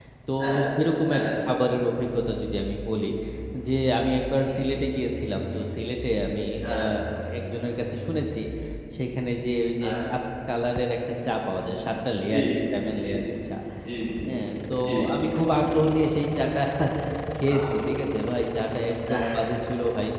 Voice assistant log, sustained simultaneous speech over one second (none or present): none